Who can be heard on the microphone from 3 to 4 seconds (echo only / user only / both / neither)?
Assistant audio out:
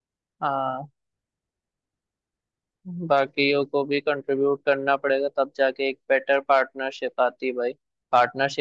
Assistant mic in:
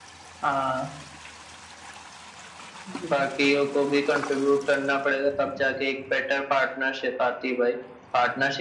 echo only